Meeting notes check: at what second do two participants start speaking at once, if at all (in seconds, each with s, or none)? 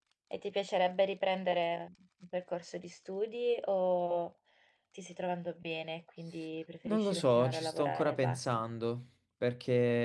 6.8 s